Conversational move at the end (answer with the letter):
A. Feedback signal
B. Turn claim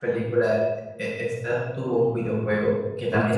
A